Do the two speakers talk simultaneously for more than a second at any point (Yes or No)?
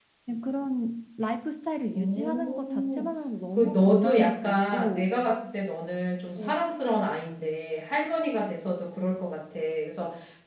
Yes